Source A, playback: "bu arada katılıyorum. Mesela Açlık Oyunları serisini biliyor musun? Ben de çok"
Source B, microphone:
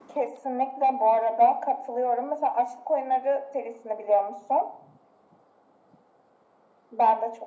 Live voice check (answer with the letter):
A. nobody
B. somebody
A